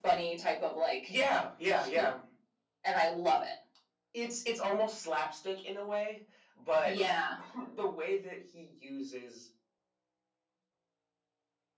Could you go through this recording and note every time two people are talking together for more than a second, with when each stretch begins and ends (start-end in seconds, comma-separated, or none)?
none